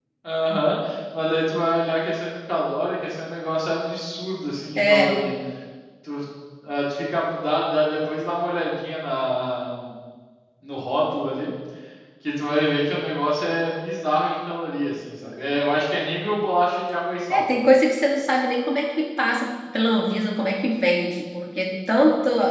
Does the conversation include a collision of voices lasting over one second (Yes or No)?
No